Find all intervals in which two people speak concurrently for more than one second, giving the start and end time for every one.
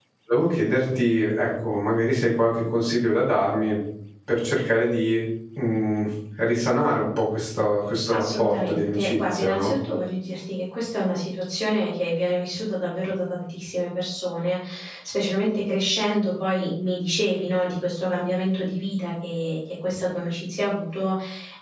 8.1-9.7

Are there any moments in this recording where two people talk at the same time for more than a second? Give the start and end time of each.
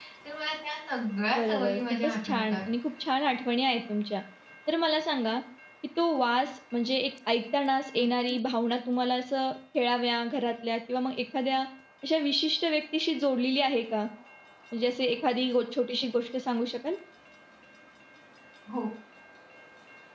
1.4-2.6

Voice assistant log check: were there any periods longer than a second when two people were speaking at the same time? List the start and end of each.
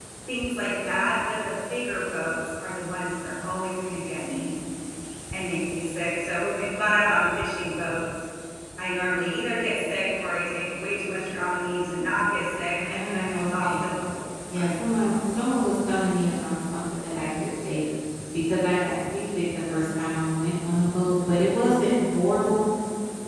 12.7-13.9

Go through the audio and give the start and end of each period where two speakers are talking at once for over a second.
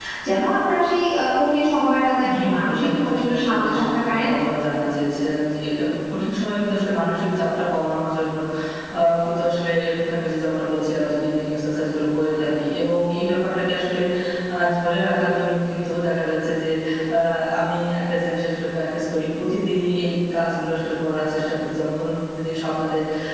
2.3-4.3

